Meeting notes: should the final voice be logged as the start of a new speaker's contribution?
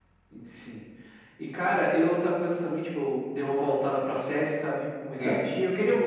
No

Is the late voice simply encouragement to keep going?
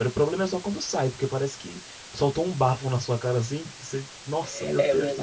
No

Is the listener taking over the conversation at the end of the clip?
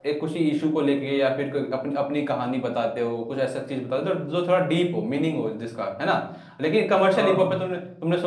No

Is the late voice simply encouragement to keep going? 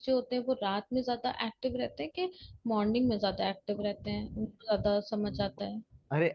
No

